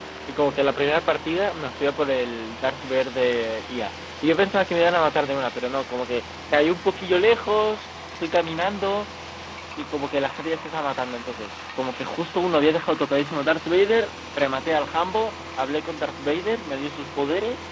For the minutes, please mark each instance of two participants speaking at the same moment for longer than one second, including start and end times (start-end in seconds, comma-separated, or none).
none